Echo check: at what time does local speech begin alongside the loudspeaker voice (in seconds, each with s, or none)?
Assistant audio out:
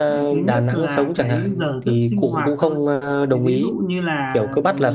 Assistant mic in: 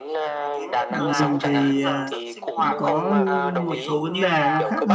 0.9 s